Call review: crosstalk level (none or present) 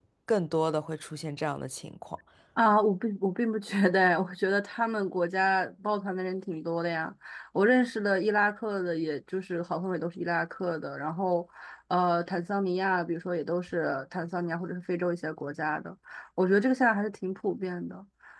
none